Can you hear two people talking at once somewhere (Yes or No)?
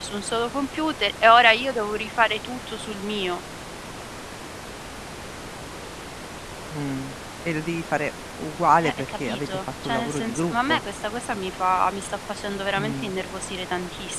Yes